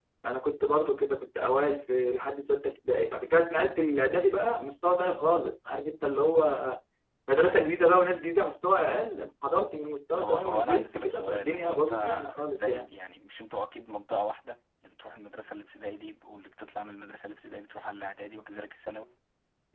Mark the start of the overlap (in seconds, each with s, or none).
10.2 s